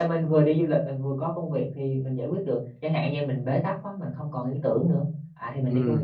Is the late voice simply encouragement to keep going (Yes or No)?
No